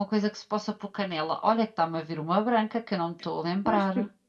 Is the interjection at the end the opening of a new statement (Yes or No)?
Yes